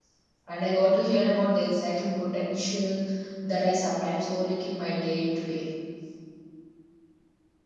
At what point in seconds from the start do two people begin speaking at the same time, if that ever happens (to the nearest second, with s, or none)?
none